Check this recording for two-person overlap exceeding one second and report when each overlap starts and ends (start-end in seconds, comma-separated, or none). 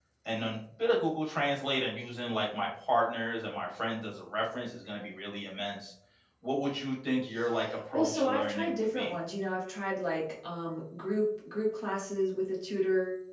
7.9-9.1